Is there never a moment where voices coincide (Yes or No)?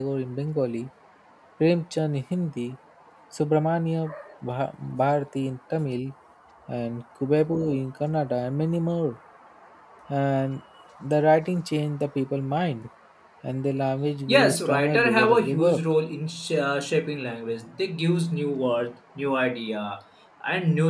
No